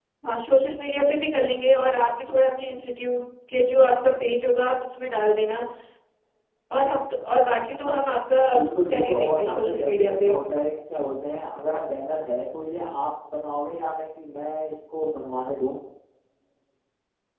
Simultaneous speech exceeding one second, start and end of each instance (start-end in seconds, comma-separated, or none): 8.9-10.4